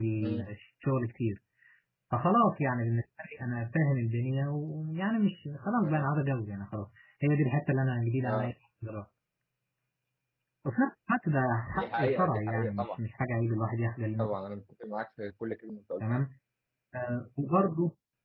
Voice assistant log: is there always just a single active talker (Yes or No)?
No